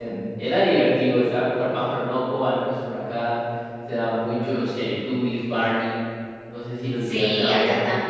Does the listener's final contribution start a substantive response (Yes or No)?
Yes